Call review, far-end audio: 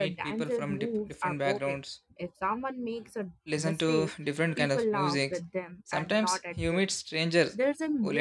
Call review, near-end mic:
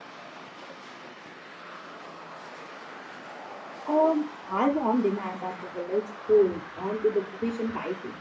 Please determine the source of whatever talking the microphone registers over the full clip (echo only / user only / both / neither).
user only